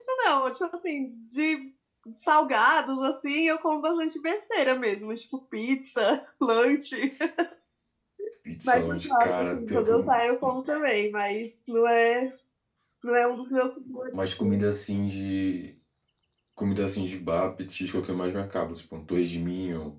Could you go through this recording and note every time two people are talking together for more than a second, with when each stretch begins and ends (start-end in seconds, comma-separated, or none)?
8.6-10.1